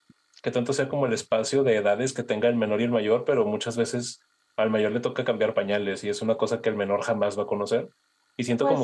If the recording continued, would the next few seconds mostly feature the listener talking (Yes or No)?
No